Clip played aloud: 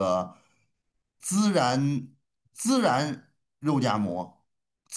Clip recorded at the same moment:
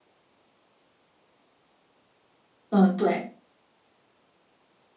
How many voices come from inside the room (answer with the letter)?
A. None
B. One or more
B